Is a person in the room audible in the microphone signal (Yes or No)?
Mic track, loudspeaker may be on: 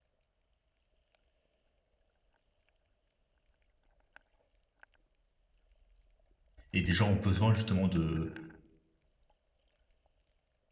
Yes